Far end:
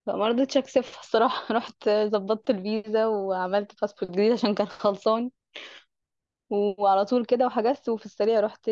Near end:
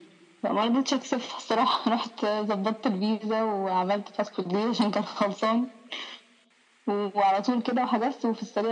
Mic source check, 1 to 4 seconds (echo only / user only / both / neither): echo only